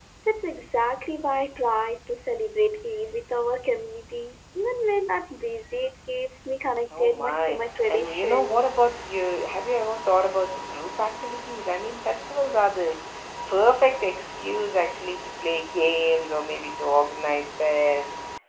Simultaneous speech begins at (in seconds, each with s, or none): 6.9 s